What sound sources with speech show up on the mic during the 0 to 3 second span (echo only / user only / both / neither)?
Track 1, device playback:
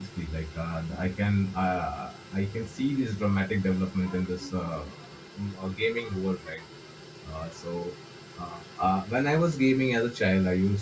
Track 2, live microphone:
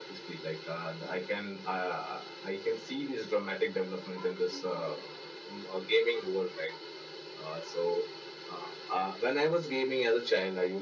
echo only